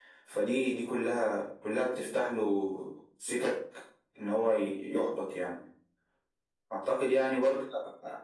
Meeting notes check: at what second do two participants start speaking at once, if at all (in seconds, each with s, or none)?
none